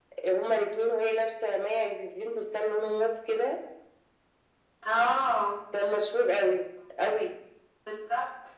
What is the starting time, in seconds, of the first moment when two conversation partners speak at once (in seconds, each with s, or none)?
none